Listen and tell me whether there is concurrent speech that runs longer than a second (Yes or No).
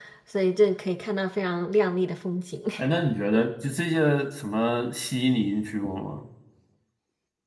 No